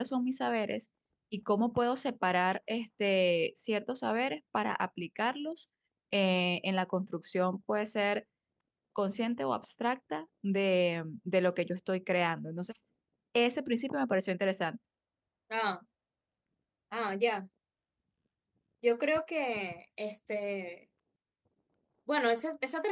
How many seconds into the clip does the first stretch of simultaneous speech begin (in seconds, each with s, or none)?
none